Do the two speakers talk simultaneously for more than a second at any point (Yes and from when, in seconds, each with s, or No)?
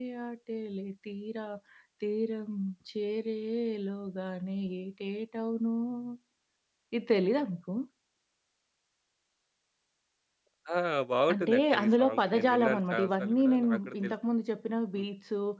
Yes, from 11.3 s